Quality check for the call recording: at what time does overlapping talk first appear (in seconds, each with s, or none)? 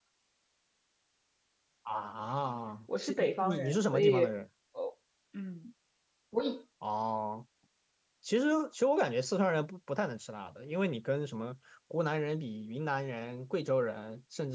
2.9 s